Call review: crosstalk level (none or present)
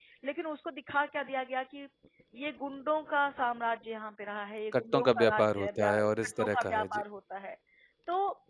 present